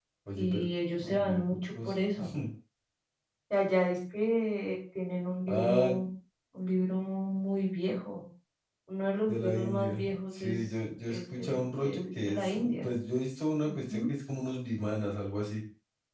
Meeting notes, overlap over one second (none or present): present